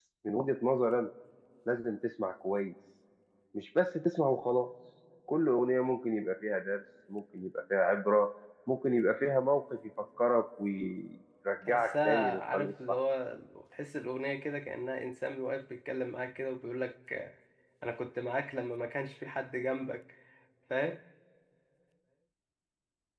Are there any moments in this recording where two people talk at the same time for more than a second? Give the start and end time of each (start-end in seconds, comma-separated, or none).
11.7-13.0